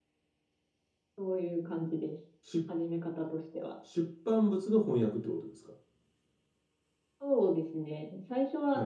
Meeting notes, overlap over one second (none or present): none